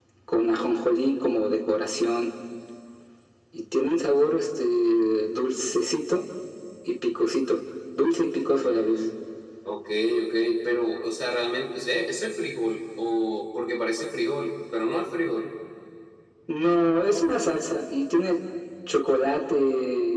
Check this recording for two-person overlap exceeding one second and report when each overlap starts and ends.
none

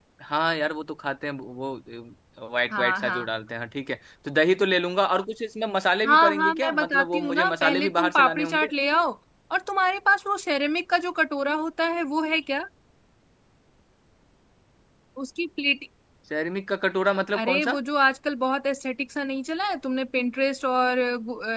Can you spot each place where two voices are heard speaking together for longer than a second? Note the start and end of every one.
6.1-8.7

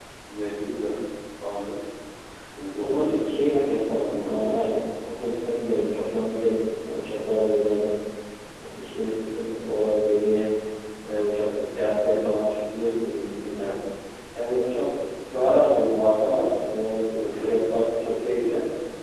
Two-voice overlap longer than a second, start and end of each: 2.8-4.6

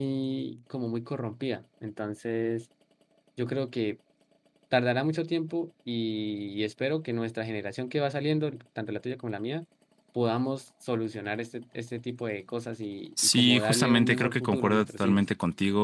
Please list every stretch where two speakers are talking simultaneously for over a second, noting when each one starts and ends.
13.2-15.2

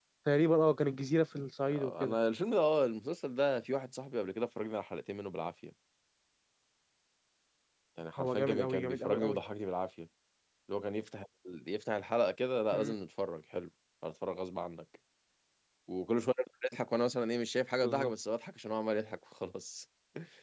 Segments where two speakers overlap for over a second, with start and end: 8.2-9.4

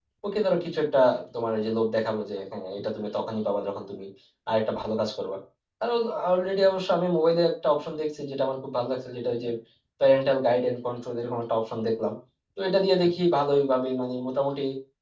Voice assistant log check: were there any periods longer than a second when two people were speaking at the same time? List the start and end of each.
none

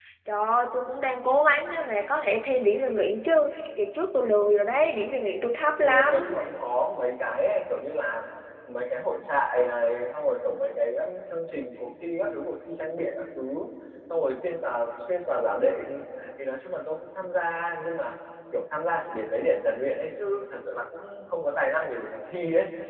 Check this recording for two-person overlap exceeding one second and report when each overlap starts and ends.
none

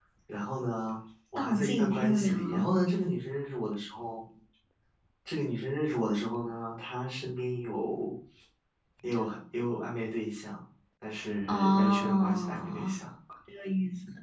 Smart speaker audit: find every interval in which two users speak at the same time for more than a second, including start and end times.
1.4-2.8, 11.5-12.9

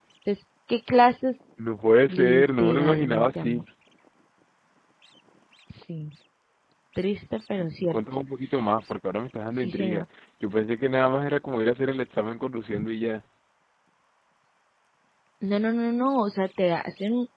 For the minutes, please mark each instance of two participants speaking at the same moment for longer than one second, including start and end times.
2.1-3.6

